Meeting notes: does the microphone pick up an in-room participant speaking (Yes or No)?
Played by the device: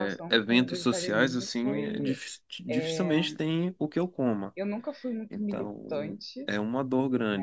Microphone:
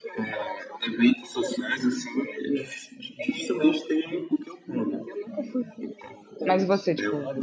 Yes